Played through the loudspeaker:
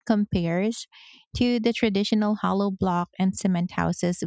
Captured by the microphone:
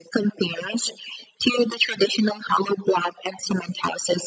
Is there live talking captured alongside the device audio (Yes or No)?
No